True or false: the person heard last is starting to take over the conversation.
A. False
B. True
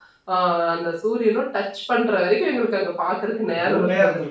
B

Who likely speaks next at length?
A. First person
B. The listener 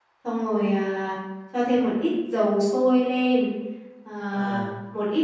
A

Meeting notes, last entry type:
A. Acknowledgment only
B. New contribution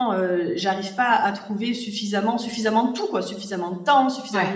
A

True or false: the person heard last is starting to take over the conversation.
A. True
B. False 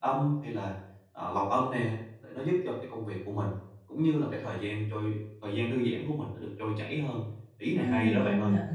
A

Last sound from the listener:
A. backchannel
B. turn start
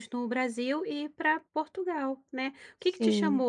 A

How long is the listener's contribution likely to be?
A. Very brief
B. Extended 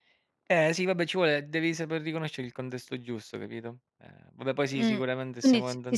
B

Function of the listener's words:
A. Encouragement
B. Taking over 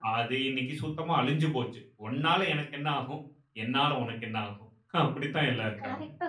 B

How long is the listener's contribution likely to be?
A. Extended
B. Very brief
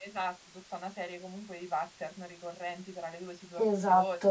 B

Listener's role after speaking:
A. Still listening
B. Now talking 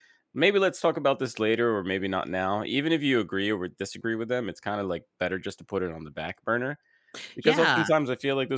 A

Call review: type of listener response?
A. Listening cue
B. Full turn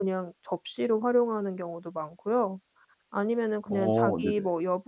A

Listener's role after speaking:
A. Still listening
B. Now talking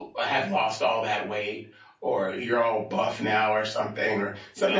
A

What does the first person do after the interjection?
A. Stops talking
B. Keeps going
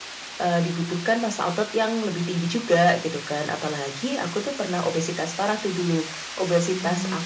B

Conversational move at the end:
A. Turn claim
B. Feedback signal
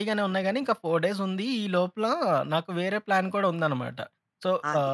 B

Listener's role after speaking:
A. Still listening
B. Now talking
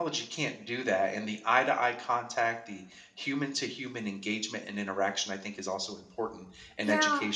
A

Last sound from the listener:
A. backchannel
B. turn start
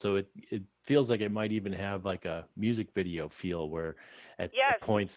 A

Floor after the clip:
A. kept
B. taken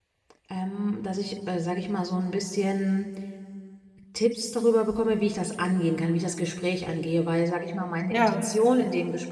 A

